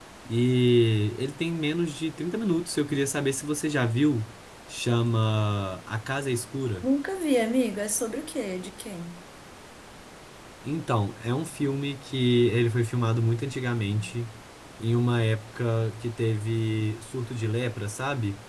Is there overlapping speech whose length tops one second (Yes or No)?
No